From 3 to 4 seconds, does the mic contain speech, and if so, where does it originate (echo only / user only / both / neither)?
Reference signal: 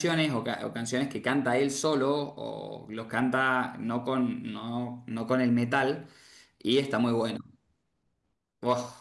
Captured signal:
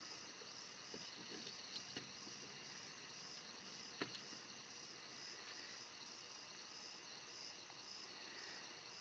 neither